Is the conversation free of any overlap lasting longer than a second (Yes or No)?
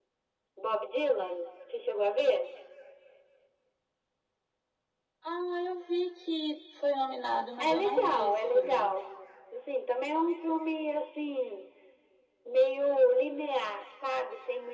No